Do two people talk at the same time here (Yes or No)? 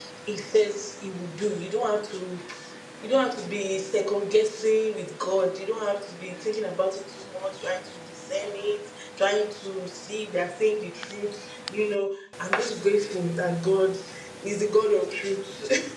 No